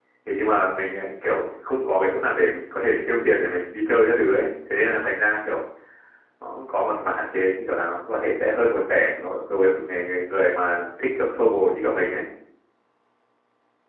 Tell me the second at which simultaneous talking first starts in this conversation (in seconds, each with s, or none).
none